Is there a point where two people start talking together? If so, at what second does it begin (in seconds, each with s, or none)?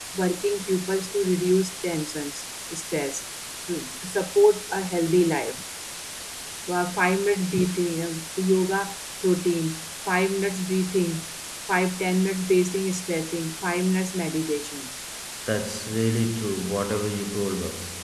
none